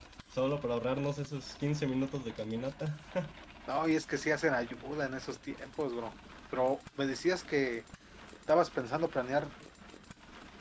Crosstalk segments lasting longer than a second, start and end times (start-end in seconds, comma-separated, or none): none